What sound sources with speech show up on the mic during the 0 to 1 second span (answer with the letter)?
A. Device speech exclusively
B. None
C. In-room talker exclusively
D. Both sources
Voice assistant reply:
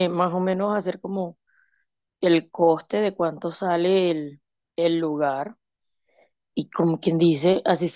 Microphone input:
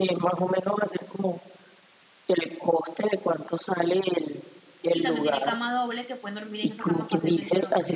A